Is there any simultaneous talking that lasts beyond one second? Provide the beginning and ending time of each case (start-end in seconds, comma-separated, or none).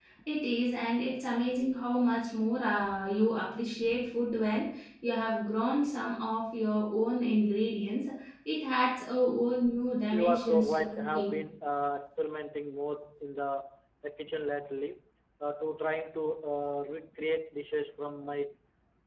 10.1-11.3